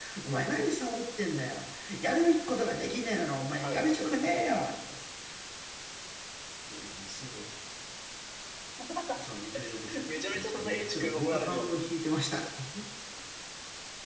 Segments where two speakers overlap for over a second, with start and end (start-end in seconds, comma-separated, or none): 10.3-11.8